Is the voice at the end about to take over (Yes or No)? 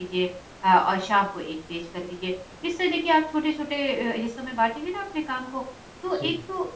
No